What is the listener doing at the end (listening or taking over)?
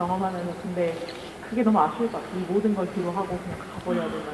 taking over